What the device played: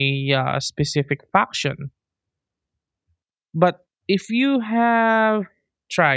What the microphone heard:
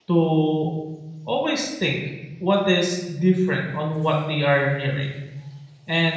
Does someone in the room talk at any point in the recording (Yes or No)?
Yes